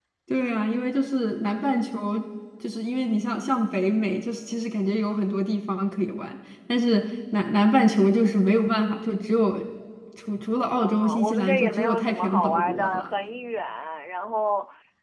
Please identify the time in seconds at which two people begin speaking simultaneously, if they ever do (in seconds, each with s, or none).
10.8 s